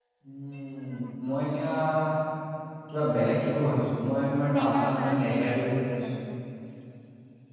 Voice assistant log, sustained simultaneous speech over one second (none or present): present